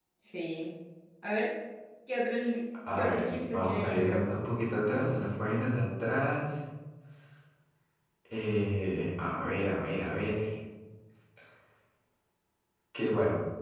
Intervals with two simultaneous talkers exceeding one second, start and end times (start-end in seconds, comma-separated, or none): 2.9-4.2